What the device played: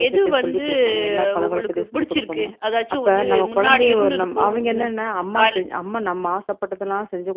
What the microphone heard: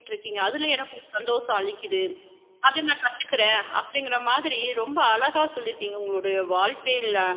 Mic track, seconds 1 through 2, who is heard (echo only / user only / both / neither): user only